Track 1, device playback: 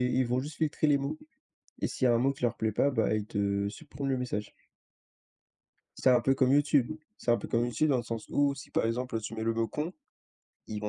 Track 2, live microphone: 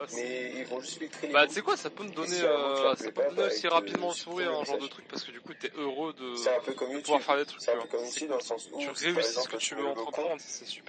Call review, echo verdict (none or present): present